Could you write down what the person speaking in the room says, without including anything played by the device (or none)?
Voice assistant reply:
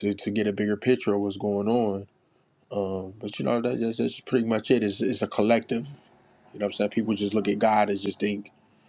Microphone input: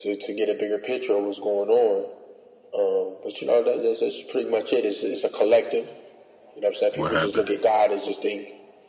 What happened?